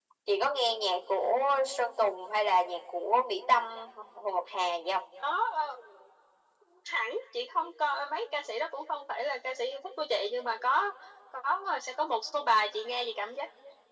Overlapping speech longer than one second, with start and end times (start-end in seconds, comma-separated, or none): none